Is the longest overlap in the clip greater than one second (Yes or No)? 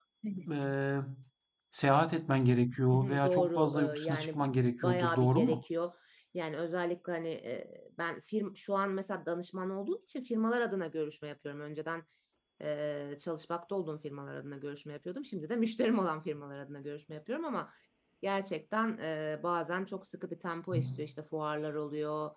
Yes